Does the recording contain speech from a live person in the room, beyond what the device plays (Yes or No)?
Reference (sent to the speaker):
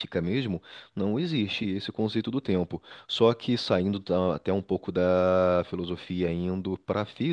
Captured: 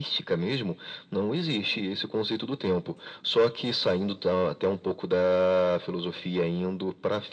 No